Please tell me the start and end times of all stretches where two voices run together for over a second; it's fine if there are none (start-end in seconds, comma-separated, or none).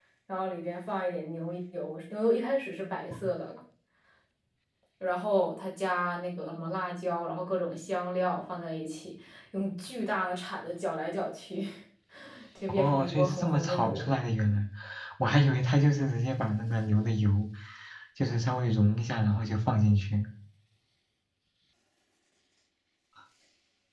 12.8-14.1